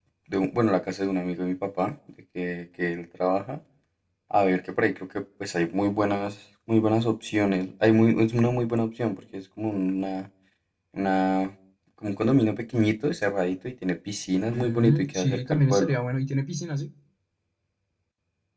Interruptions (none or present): present